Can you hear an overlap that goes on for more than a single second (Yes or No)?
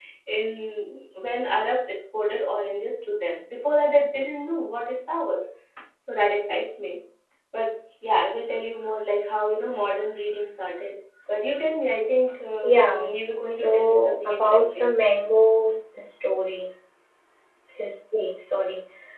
Yes